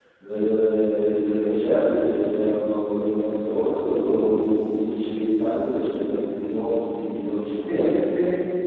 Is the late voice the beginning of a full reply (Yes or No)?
Yes